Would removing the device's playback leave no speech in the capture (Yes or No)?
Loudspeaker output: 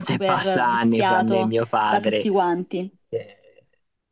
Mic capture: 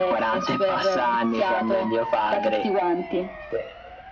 Yes